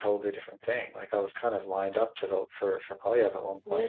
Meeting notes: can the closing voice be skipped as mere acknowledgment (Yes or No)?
No